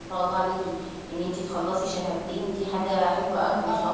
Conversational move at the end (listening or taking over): taking over